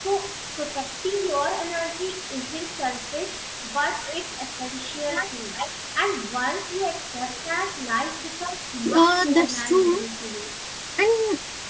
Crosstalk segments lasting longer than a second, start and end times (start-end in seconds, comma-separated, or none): 8.8-10.1